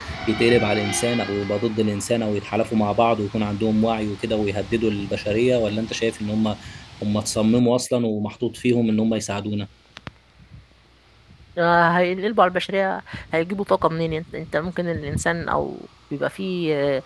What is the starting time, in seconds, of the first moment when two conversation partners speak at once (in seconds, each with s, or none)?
none